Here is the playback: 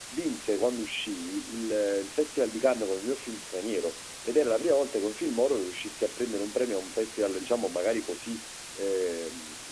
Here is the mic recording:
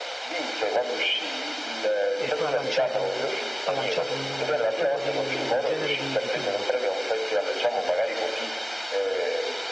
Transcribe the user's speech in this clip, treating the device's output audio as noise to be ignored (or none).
e poi ha lanciato, ha lanciato un, un tipo di, un genere di, di film.